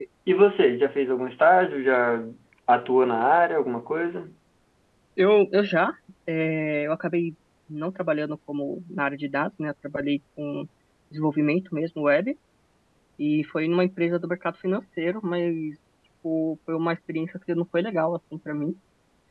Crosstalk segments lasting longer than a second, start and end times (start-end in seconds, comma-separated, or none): none